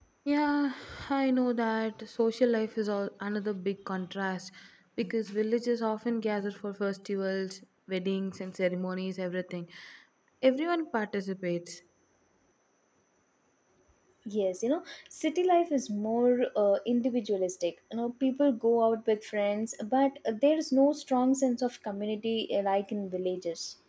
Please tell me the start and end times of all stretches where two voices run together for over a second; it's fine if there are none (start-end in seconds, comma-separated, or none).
none